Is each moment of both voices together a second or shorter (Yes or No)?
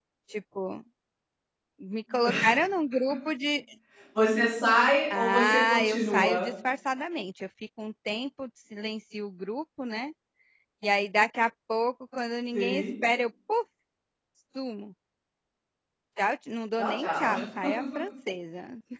No